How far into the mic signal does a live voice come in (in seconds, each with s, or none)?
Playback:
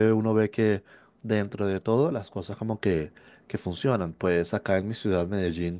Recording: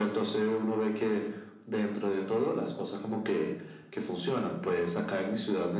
none